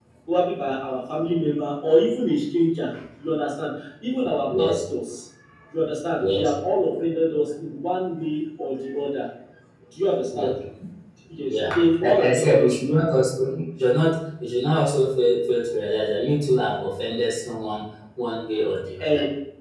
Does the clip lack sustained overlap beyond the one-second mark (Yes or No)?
No